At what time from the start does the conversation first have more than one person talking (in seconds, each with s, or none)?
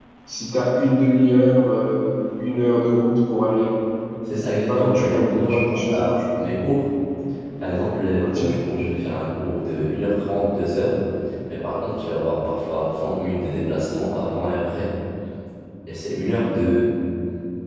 4.7 s